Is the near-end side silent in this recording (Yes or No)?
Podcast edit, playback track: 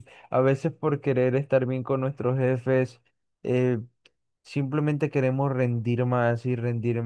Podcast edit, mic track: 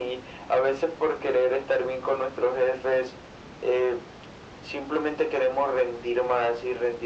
Yes